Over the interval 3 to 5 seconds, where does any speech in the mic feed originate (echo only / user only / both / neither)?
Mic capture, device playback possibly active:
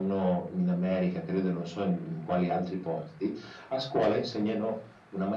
echo only